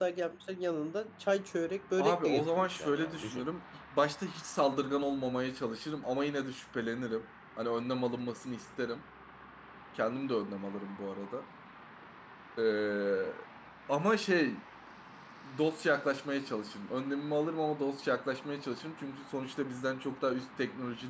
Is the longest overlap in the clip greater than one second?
Yes, from 2.0 s

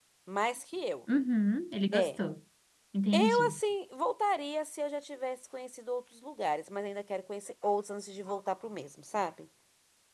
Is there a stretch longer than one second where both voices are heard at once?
No

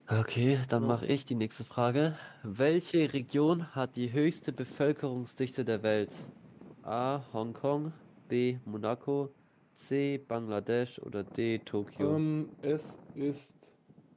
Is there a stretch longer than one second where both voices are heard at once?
No

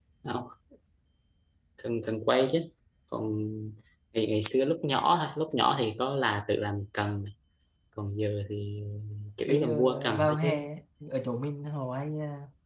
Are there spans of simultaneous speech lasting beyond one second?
Yes, from 9.5 s

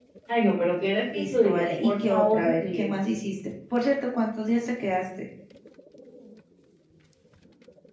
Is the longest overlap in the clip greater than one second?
Yes, from 1.1 s

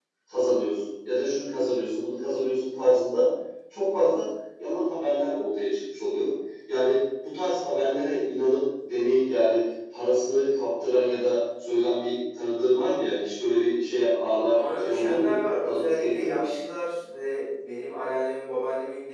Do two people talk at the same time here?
Yes, from 14.5 s

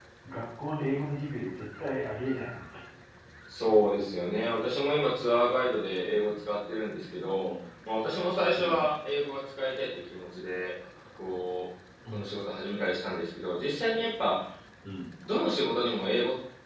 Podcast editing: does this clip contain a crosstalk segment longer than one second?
No

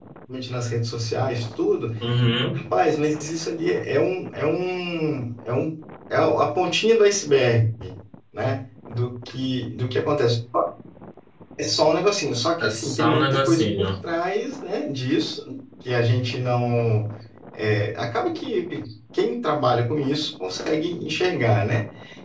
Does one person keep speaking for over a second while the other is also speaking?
Yes, from 12.6 s

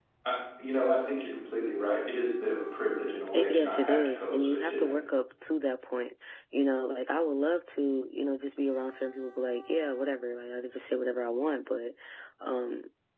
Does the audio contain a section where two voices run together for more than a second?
Yes, from 3.3 s

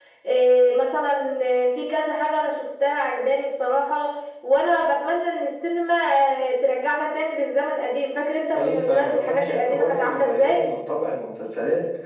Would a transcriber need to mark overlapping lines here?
Yes, from 8.5 s

